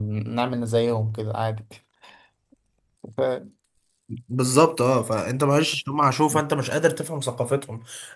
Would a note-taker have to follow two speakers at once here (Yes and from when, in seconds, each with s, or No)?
No